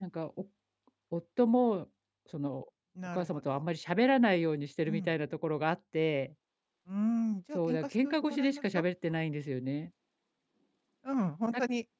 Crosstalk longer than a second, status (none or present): present